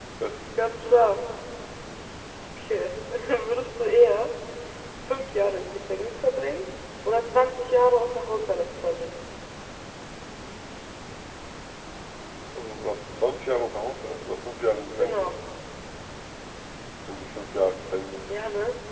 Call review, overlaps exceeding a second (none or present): none